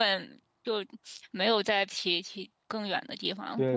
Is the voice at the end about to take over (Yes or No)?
Yes